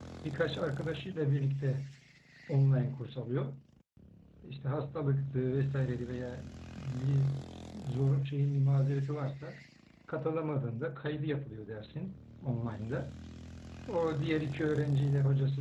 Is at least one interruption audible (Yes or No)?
No